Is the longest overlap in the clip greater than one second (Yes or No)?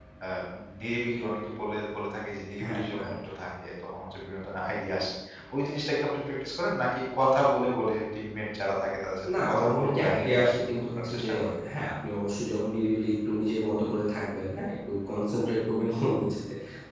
Yes